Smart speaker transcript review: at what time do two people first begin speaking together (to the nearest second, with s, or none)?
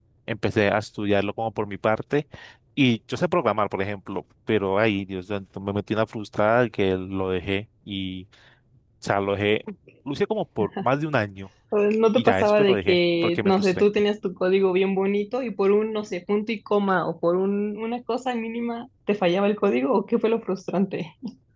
12 s